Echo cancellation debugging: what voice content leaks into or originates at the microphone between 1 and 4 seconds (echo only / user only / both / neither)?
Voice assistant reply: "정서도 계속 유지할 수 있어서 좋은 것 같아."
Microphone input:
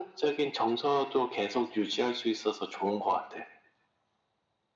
echo only